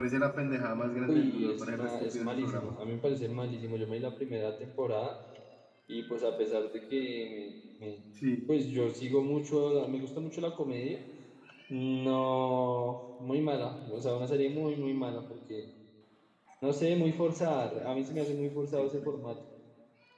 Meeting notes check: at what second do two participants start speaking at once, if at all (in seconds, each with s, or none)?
1.1 s